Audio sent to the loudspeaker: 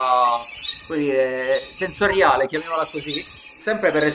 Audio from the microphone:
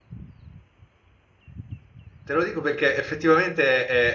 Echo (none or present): none